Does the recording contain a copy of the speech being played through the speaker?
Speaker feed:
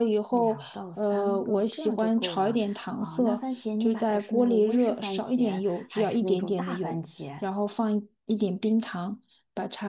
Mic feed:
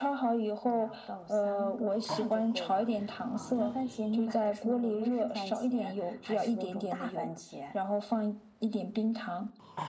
Yes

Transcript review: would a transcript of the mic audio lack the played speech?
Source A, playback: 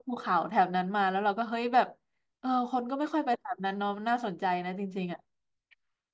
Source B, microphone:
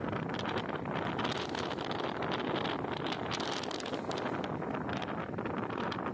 Yes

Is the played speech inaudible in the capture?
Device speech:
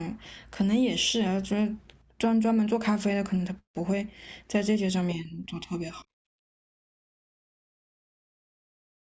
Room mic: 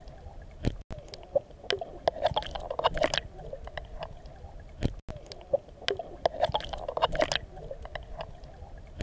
Yes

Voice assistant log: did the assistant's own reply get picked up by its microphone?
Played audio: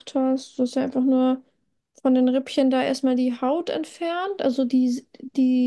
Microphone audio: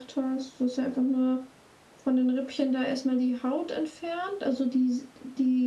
Yes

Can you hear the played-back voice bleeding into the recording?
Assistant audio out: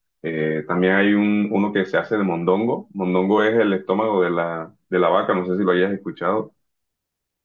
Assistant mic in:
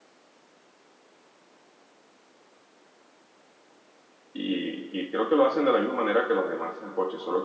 No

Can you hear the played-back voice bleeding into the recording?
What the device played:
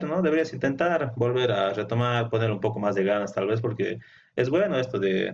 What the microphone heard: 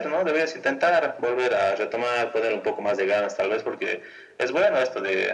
Yes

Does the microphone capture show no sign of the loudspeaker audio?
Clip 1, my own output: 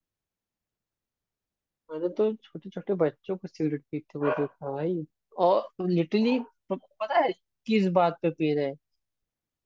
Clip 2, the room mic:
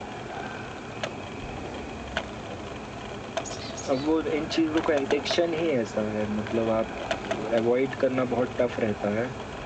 Yes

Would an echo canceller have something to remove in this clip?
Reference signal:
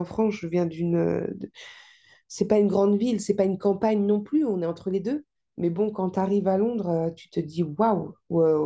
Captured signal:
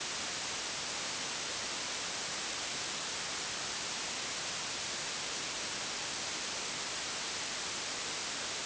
No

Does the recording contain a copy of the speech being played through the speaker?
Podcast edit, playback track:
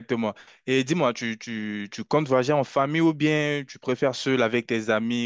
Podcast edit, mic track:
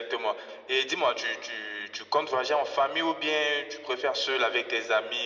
Yes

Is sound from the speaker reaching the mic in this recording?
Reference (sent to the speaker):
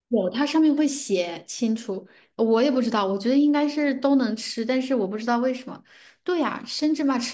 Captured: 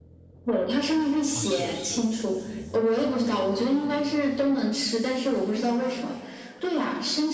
Yes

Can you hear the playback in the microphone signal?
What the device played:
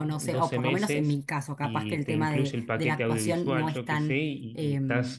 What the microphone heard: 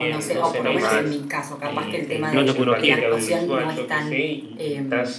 Yes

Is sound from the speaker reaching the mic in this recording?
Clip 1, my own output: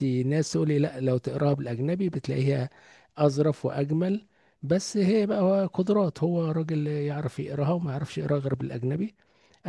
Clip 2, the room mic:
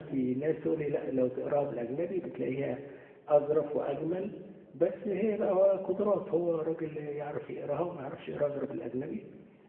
Yes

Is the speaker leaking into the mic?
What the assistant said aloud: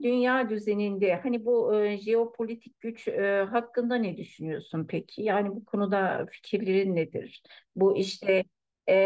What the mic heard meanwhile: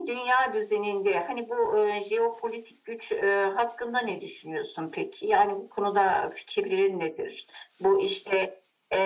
Yes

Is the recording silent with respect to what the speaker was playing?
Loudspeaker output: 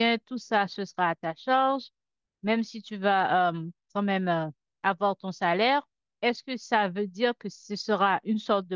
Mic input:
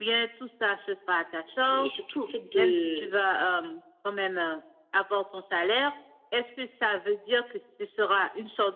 No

